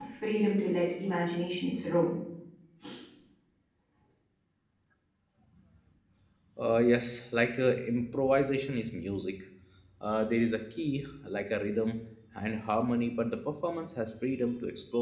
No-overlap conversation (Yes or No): Yes